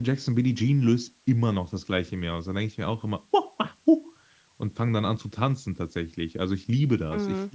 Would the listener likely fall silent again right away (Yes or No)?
Yes